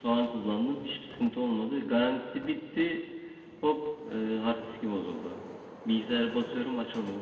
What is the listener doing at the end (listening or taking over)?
listening